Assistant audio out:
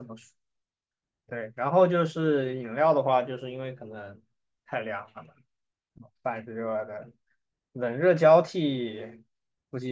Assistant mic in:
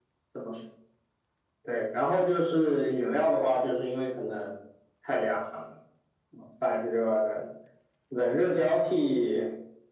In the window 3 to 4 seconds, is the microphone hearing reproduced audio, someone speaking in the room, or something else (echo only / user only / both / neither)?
echo only